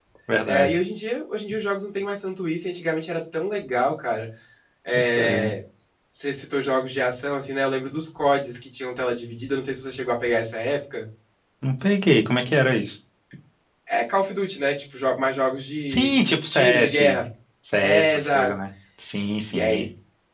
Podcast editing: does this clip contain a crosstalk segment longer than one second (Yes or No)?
Yes